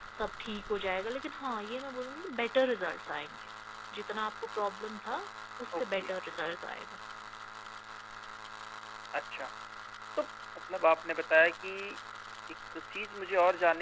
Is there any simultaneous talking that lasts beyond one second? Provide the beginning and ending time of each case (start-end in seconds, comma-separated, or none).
none